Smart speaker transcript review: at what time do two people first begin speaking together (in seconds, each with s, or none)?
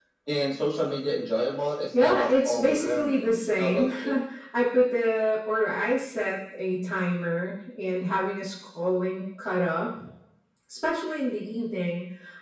1.9 s